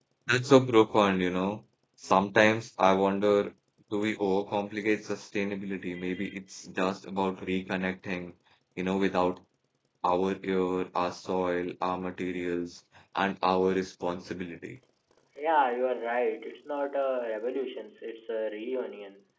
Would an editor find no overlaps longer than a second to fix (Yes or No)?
Yes